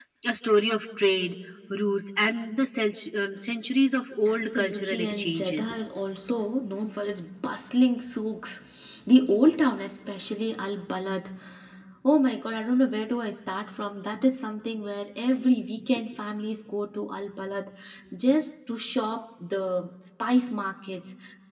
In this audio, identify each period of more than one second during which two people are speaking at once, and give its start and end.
4.3-5.8

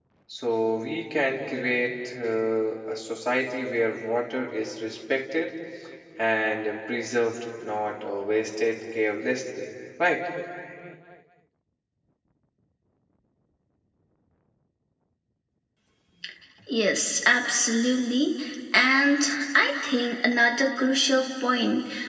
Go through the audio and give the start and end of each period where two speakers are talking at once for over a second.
none

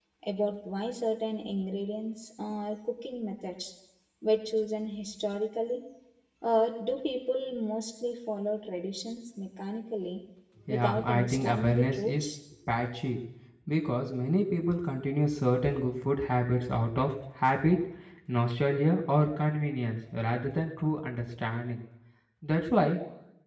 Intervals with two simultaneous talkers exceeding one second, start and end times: 10.7-12.3

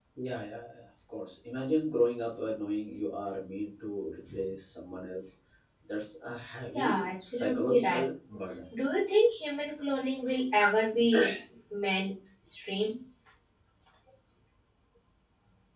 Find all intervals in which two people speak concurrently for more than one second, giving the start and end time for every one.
6.7-8.0

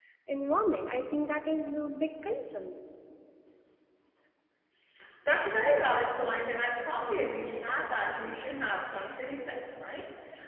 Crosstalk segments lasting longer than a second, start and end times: none

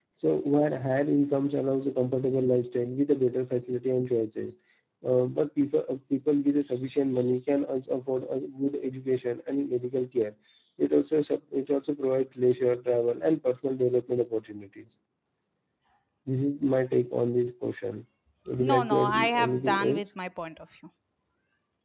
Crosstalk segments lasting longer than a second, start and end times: 18.7-20.0

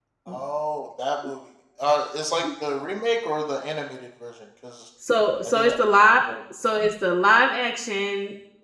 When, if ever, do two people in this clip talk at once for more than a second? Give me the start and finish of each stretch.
none

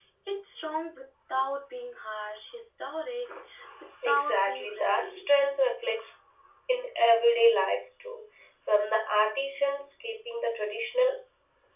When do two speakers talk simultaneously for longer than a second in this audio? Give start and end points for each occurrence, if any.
4.0-5.3

